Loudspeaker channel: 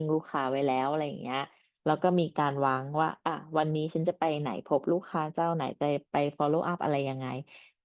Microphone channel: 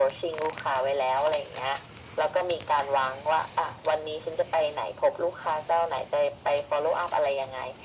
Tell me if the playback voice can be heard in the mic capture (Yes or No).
Yes